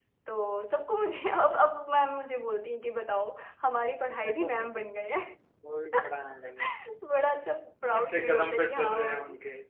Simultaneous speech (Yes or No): Yes